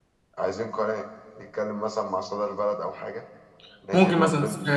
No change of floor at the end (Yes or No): No